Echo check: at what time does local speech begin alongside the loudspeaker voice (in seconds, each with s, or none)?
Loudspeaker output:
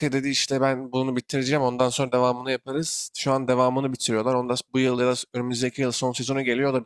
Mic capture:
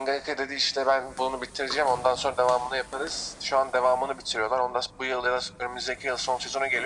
none